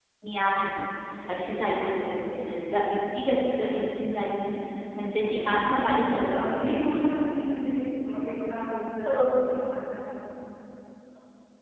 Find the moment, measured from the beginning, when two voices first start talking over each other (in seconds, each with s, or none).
5.2 s